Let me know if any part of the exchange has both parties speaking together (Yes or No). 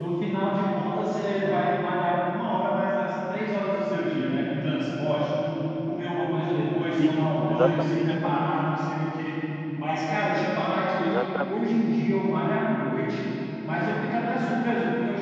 Yes